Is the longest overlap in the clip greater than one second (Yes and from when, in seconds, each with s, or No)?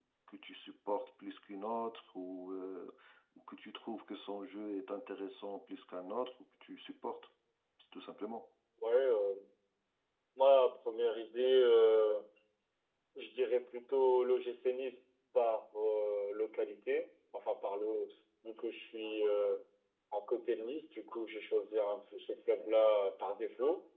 No